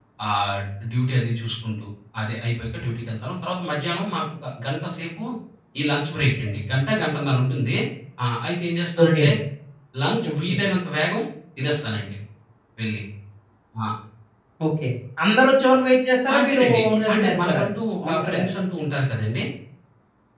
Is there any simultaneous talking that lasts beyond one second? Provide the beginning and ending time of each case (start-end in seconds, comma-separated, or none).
16.3-17.6